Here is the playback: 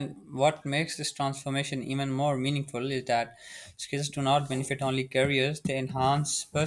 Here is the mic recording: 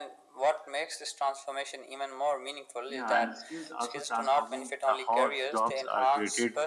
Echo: present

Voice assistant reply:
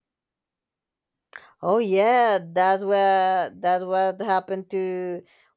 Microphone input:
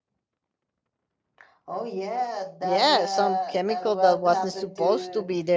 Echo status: present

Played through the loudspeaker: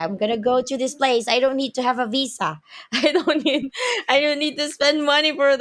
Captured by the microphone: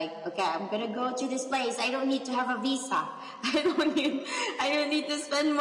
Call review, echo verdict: present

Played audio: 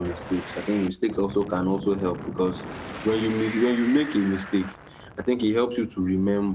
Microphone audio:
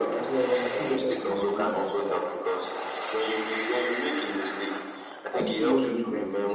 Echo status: present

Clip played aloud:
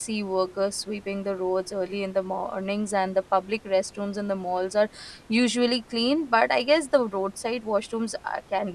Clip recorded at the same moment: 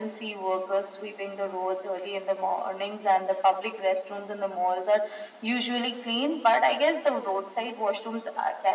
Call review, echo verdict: present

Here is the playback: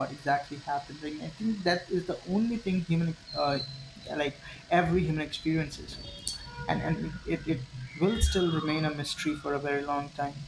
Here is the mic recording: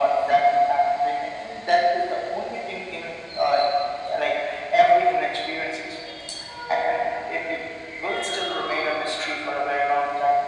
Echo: present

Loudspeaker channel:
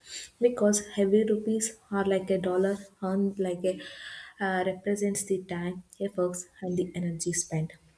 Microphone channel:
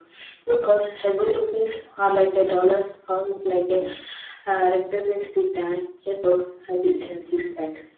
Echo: present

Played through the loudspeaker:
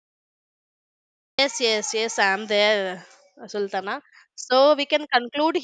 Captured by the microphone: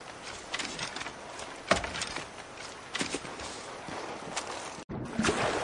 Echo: none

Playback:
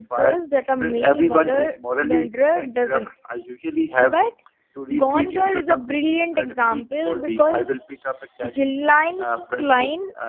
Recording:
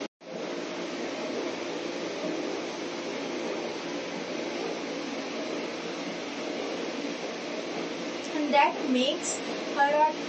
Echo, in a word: none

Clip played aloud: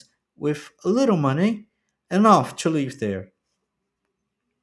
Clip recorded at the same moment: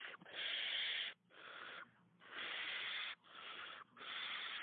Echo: none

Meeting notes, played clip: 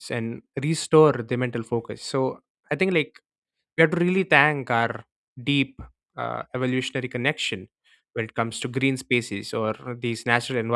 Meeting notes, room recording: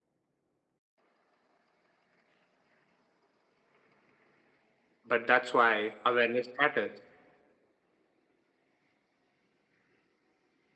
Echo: none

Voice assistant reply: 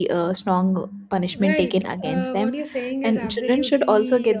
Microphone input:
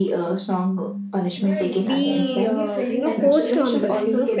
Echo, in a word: present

